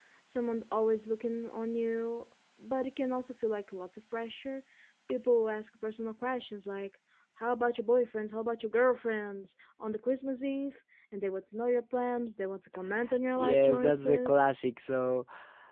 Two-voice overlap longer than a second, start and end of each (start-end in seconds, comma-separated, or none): 13.4-14.6